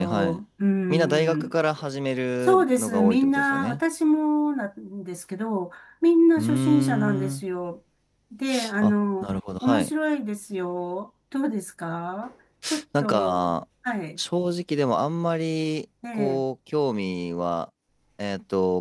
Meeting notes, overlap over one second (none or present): present